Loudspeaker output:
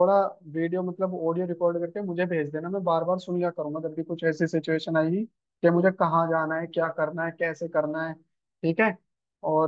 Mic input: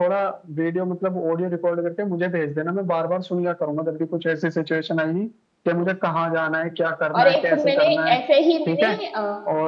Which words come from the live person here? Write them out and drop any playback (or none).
और एक मैंने ऐसे ही मैंने अ,